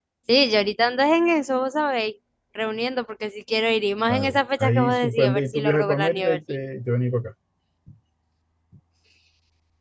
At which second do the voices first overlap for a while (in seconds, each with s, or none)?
4.1 s